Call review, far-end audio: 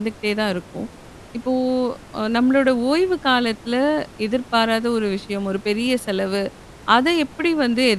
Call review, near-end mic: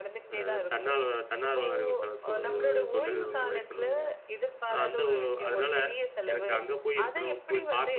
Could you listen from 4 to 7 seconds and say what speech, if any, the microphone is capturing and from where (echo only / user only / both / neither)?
both